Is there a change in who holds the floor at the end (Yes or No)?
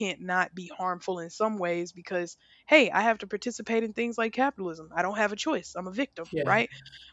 No